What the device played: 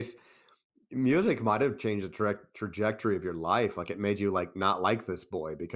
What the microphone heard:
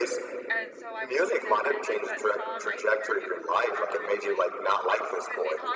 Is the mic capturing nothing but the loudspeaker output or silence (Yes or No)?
No